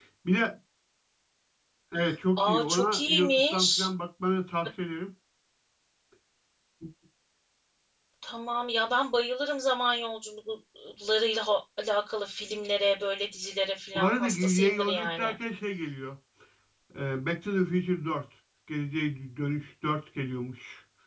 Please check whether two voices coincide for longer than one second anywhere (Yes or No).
Yes